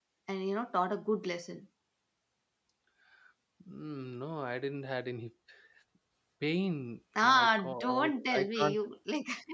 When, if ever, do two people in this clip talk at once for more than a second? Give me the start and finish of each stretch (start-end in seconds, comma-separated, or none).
7.2-8.8